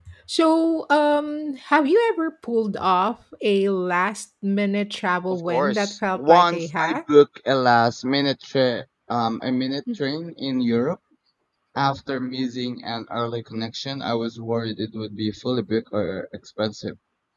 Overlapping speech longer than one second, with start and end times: 5.5-7.0

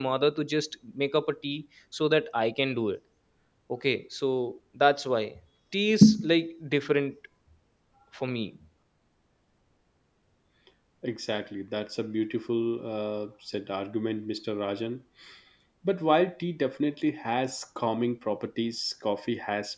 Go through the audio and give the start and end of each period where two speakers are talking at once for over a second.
none

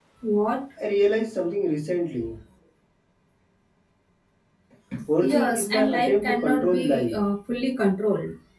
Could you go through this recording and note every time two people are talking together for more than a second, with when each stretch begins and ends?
5.2-7.2

